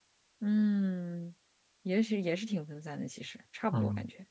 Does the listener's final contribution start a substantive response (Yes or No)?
Yes